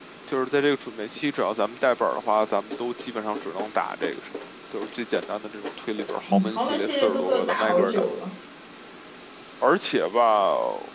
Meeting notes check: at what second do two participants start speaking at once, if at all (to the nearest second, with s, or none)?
6 s